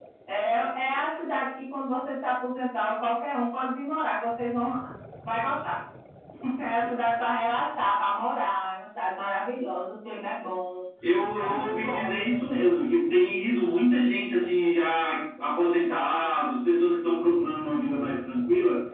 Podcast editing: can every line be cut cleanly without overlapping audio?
No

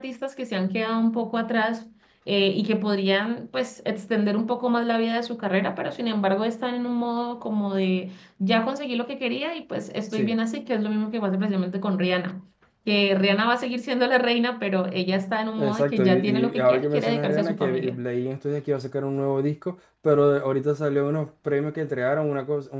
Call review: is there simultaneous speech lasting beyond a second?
Yes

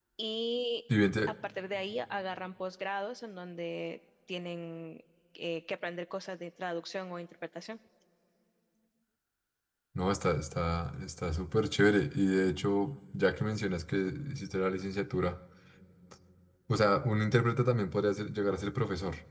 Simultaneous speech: No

